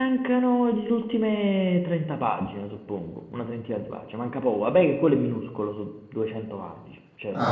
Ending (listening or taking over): taking over